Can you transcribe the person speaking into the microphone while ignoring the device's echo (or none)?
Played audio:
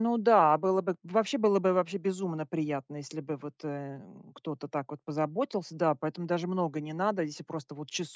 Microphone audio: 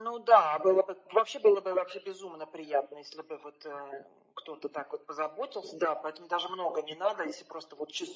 none